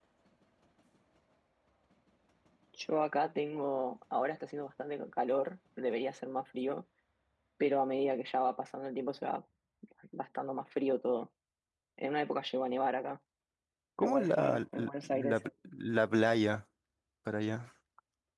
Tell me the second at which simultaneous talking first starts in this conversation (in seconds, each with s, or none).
14.0 s